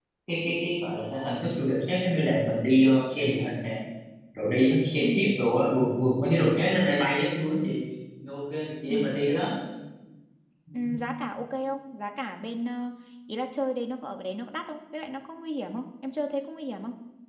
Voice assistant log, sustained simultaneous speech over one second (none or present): none